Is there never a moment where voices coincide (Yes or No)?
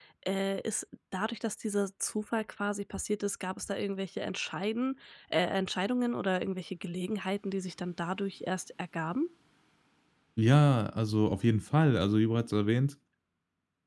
Yes